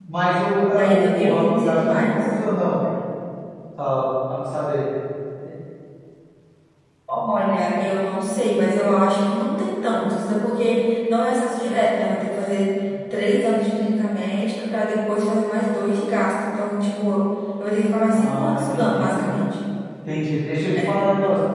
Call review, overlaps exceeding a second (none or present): present